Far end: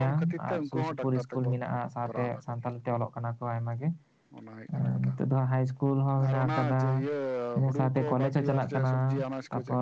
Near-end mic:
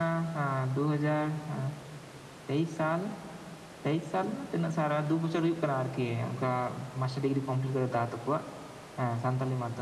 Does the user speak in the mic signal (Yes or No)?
Yes